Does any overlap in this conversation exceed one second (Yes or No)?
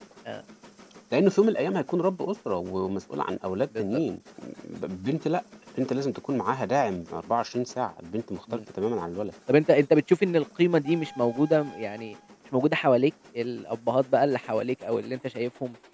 No